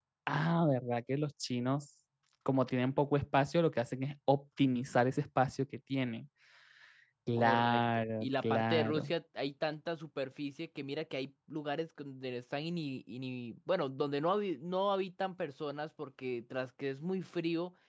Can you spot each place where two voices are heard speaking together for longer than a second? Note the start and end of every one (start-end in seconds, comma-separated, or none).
7.4-9.1